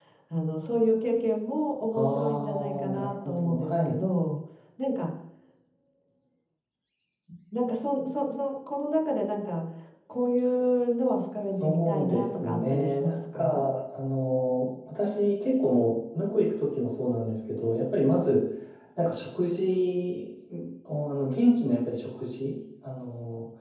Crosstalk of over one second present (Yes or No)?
Yes